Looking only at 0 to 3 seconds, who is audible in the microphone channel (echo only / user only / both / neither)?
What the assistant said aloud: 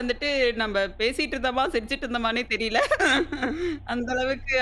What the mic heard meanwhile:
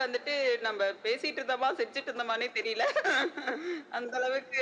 echo only